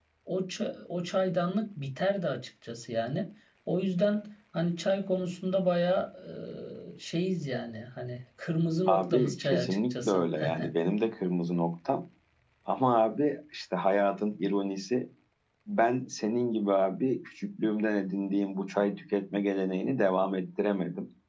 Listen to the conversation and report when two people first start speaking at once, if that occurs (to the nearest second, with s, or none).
9 s